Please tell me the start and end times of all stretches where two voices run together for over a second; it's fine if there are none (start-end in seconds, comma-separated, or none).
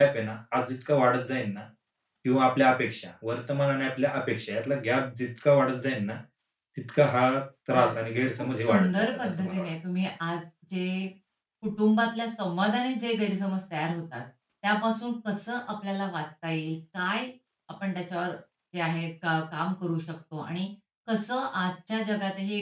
8.4-9.7